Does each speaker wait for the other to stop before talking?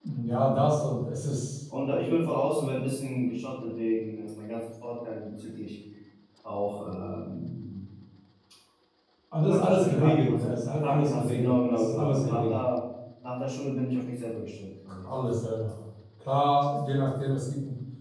No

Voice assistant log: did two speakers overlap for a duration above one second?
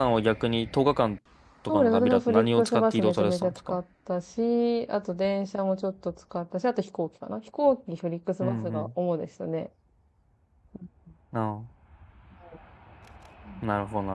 Yes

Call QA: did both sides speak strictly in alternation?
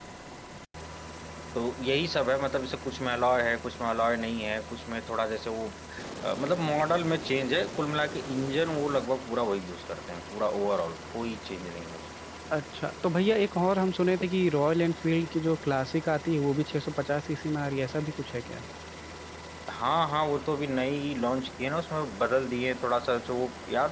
Yes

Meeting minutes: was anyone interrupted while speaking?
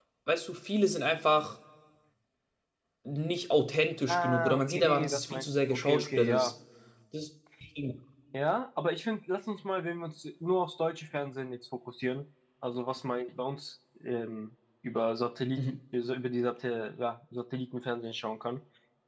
Yes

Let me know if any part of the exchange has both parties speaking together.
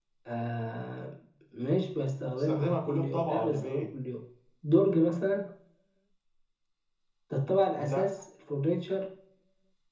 Yes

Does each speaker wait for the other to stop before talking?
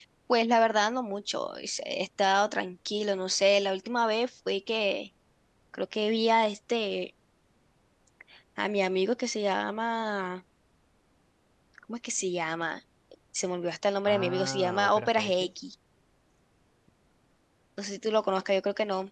No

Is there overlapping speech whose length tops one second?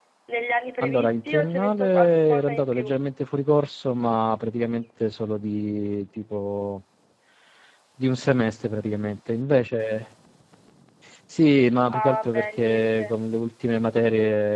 Yes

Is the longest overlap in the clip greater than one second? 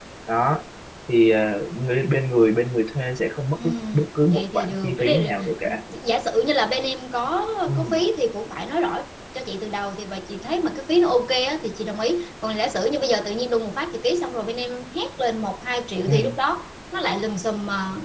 Yes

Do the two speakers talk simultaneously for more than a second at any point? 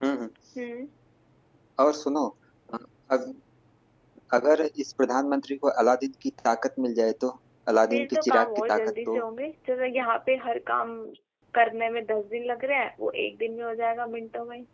Yes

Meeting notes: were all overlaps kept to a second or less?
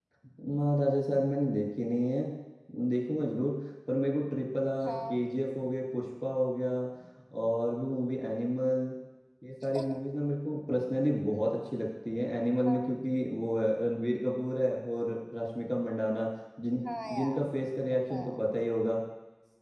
Yes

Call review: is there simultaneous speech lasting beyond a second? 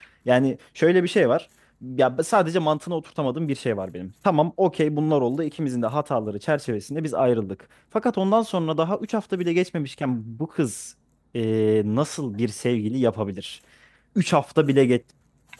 No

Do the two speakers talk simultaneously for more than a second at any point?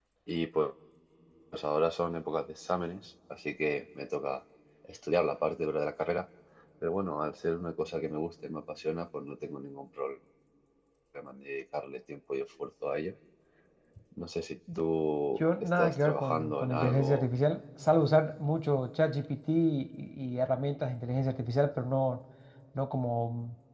Yes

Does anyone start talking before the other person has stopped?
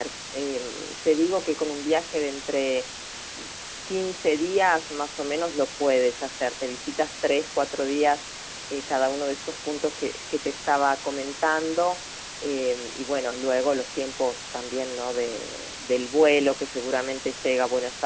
No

